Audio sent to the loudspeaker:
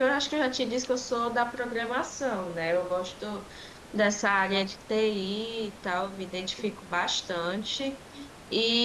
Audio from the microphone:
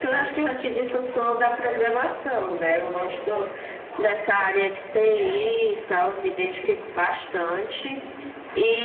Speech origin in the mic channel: both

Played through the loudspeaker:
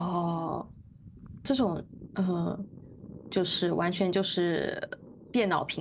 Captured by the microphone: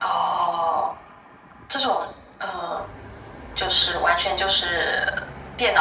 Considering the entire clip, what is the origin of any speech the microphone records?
echo only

